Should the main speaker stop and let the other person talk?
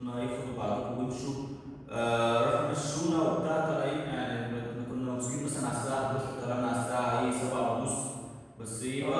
Yes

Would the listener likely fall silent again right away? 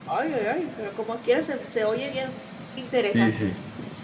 No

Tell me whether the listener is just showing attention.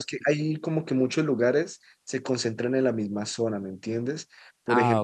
Yes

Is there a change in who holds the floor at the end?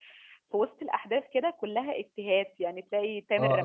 Yes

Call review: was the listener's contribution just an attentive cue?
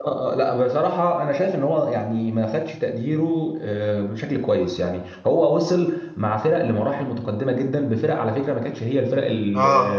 Yes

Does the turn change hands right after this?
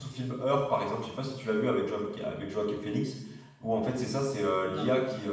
No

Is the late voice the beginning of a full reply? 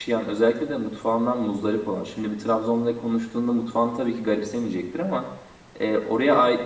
No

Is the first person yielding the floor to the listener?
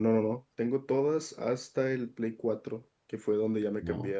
No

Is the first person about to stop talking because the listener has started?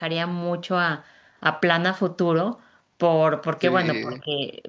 No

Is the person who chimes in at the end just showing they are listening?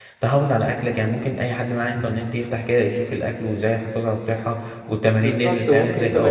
No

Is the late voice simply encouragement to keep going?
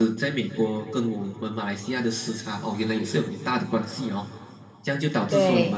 Yes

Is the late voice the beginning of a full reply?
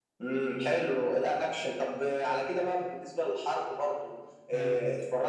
No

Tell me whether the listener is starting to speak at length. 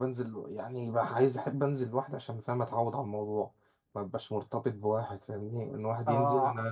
Yes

